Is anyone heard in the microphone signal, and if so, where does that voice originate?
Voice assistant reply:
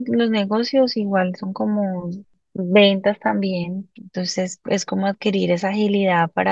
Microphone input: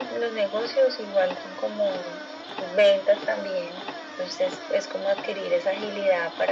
echo only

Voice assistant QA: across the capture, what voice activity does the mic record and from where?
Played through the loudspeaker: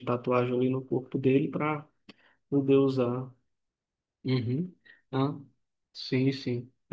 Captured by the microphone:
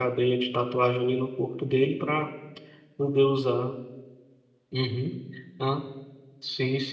echo only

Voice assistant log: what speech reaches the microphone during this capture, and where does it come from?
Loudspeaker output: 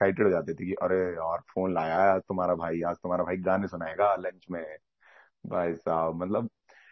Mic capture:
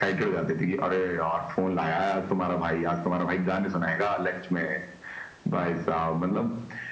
echo only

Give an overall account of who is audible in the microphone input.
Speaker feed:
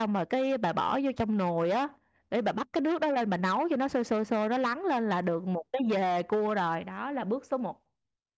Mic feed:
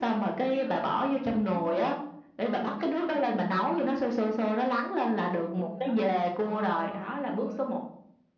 both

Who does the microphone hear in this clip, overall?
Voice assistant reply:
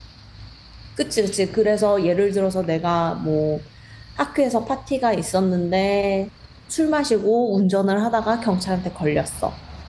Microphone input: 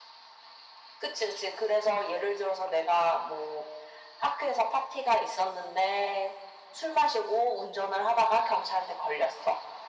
echo only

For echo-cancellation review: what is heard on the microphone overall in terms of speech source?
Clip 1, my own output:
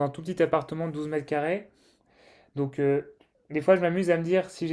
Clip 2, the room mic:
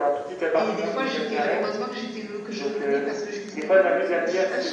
both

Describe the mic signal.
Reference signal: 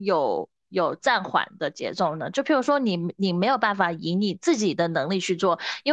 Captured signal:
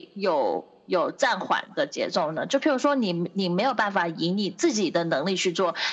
echo only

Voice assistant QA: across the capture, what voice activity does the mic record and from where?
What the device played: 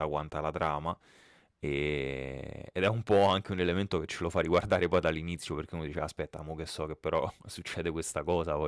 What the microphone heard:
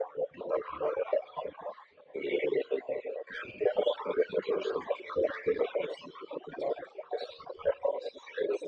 echo only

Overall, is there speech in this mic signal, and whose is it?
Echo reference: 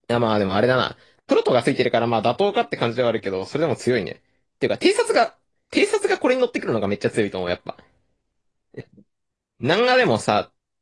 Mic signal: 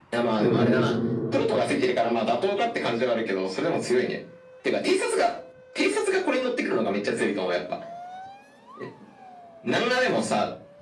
both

